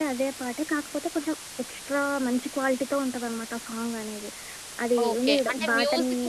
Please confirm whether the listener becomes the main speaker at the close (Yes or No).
Yes